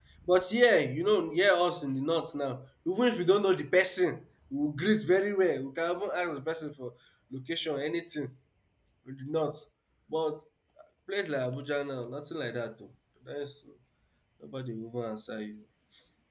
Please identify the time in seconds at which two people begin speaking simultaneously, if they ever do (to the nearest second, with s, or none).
none